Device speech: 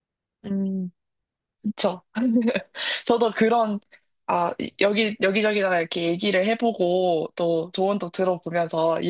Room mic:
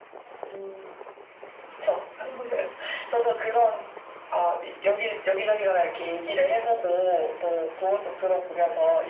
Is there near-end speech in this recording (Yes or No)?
No